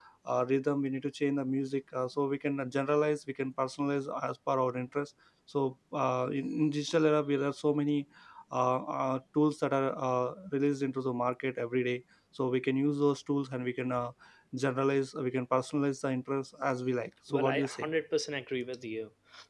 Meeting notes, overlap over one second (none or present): none